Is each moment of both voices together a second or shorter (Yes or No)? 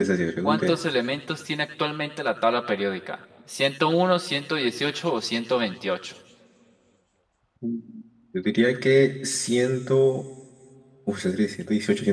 Yes